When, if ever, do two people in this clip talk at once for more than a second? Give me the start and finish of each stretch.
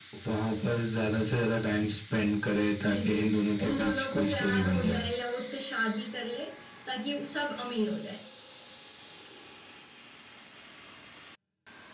3.7-5.1

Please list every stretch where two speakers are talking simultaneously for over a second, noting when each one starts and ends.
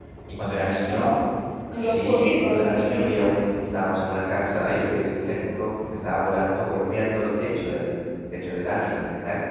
1.7-3.1

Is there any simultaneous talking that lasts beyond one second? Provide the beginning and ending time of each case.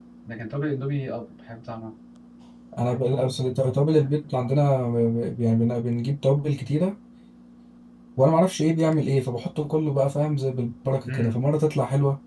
none

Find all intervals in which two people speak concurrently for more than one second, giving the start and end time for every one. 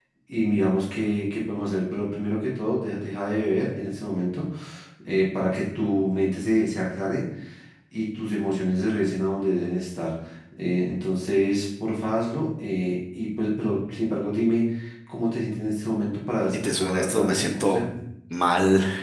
16.5-17.8

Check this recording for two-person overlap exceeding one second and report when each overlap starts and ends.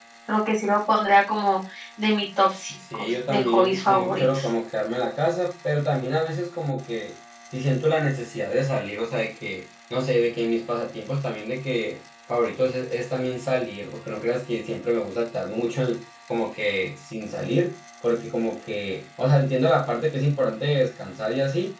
2.9-4.4

